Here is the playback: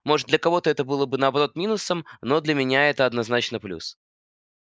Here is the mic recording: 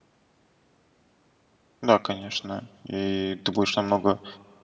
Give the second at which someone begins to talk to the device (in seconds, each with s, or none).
1.8 s